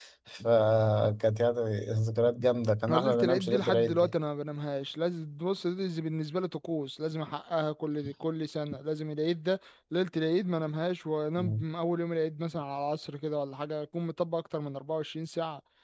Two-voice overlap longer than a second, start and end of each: 2.9-4.1

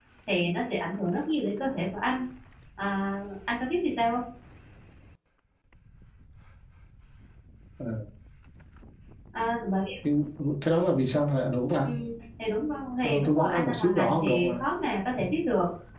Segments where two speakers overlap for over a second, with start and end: 13.0-14.5

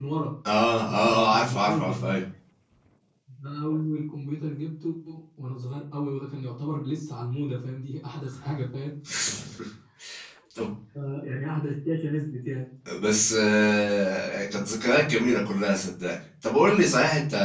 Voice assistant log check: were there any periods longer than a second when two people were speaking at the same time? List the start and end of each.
0.9-2.1

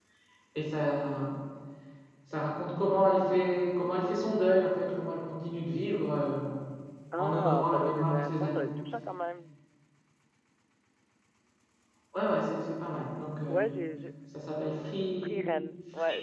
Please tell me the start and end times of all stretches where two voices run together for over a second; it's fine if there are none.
7.2-8.6

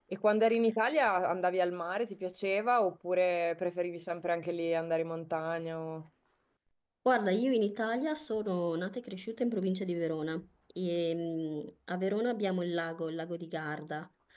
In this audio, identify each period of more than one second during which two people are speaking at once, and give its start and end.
none

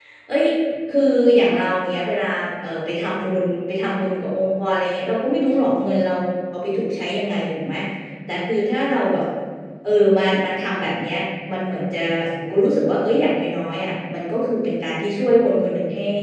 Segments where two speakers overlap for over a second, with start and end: none

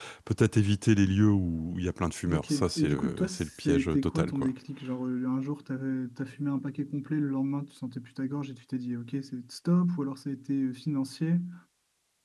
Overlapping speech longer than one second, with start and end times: 2.3-4.5

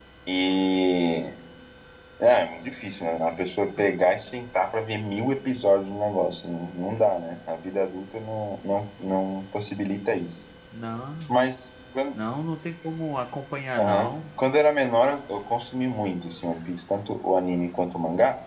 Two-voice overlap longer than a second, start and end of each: none

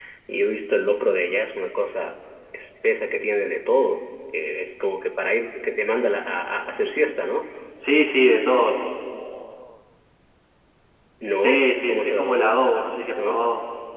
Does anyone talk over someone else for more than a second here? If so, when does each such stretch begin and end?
11.4-12.6

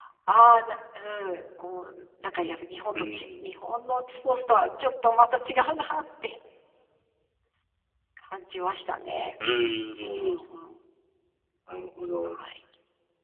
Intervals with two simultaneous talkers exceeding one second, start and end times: none

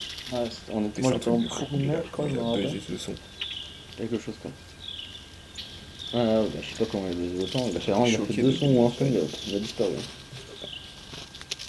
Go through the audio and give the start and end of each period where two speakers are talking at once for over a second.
1.0-2.8, 7.7-9.3

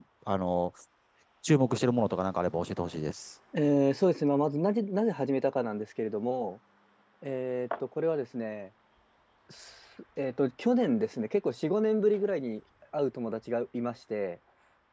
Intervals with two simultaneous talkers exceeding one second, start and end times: none

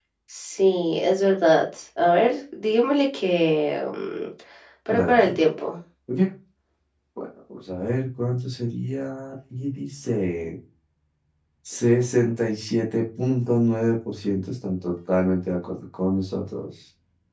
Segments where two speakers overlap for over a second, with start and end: none

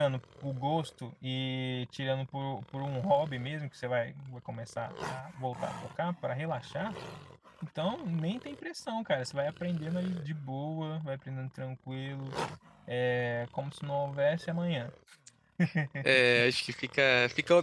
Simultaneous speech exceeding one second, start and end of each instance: none

